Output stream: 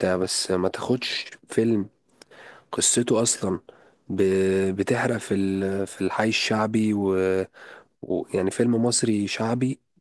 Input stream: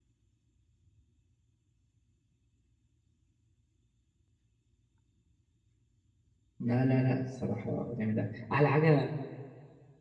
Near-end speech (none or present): present